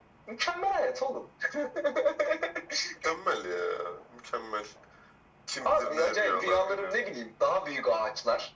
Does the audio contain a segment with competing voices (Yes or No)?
Yes